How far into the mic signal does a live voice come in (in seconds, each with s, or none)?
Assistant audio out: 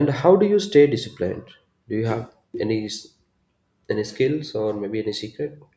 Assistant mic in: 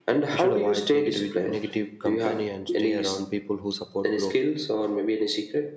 0.3 s